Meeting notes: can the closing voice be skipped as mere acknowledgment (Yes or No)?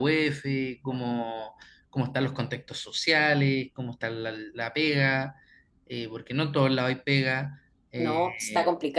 No